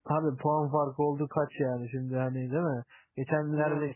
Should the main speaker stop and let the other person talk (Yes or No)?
No